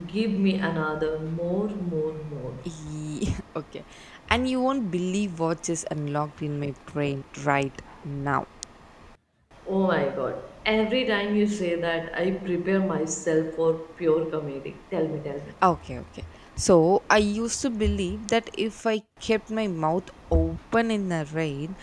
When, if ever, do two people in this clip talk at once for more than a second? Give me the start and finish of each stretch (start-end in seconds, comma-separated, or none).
none